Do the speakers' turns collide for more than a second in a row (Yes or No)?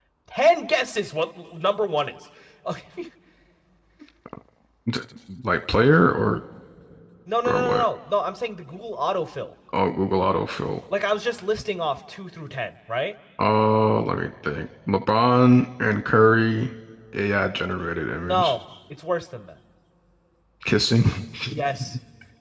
No